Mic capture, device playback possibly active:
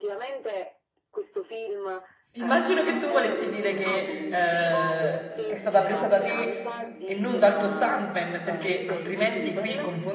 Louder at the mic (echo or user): user